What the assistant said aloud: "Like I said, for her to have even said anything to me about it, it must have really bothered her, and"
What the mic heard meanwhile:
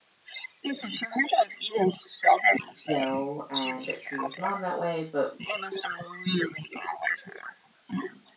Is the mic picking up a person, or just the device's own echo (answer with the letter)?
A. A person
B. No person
A